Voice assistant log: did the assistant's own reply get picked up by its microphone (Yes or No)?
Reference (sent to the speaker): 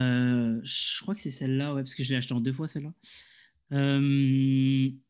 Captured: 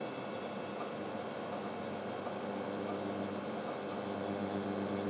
No